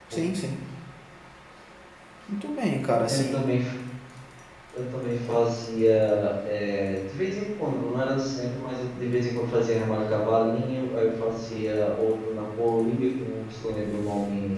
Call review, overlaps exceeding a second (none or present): none